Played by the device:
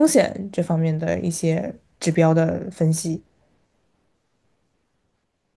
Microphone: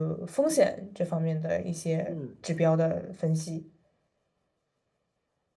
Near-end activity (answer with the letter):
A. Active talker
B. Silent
A